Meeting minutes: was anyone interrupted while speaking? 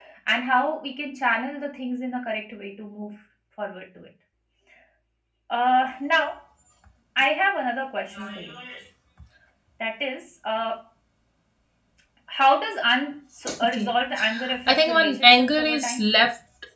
Yes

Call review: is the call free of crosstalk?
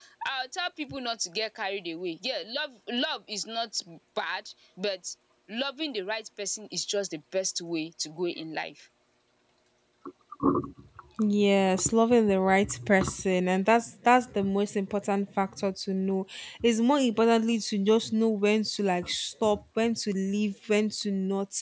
Yes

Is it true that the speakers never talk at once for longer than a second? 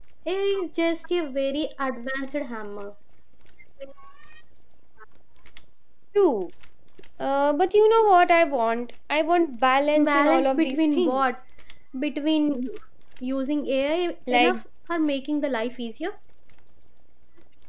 No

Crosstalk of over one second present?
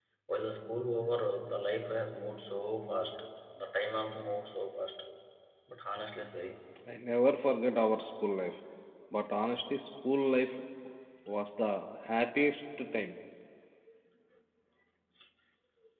No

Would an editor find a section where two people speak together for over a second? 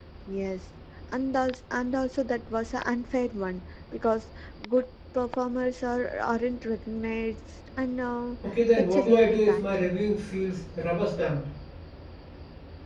Yes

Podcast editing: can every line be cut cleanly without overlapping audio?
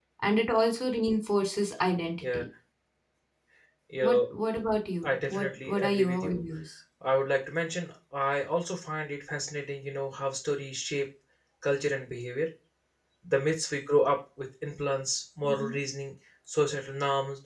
No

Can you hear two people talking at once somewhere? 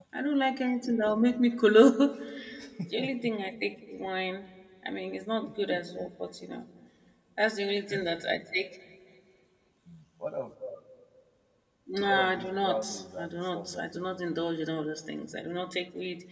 Yes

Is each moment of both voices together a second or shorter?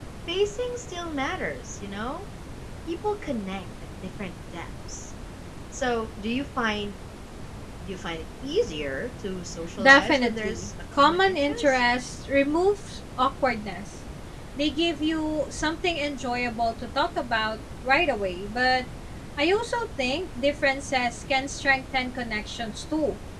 No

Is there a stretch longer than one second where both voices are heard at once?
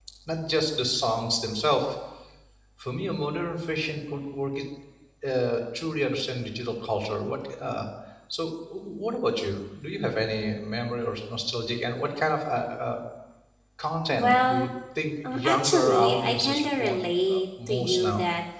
Yes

